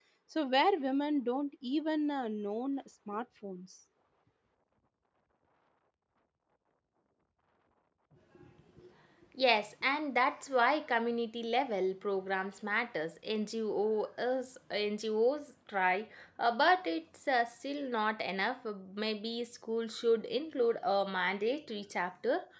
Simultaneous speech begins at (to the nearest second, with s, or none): none